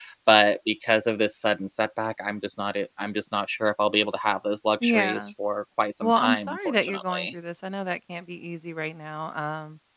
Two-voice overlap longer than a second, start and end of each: 6.0-7.3

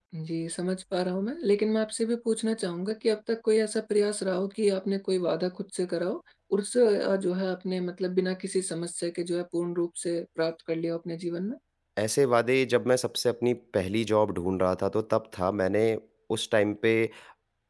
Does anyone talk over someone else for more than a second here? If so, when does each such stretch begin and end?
none

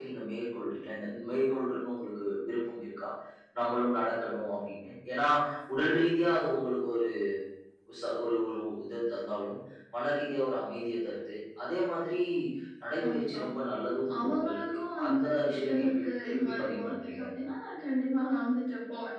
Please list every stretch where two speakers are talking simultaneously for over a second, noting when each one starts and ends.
14.2-17.2

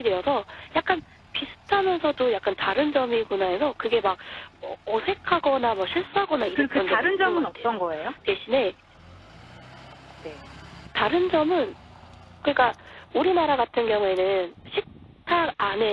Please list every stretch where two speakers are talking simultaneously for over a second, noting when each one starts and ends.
5.9-7.8

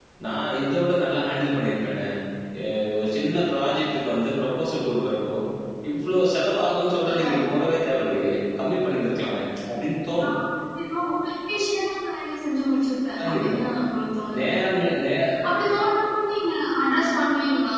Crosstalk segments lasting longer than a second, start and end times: none

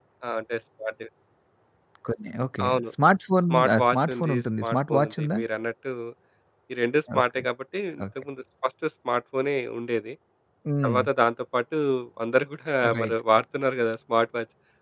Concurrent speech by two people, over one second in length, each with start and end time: 3.5-5.4

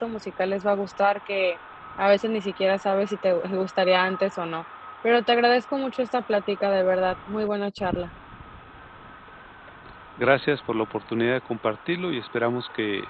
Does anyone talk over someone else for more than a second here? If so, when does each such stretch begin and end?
none

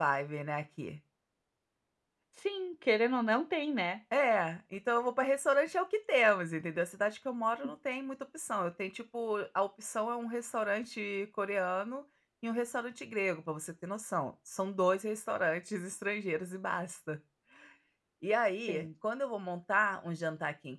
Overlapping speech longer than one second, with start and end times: none

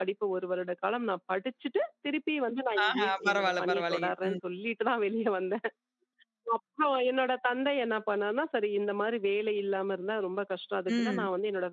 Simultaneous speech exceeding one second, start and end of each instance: 2.9-4.4

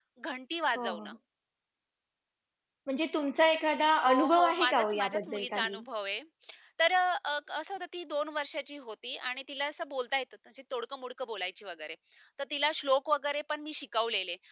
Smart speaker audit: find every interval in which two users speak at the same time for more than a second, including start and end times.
4.0-5.8

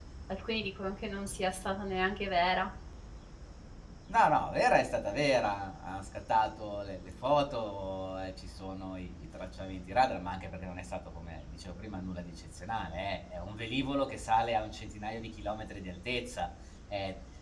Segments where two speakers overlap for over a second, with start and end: none

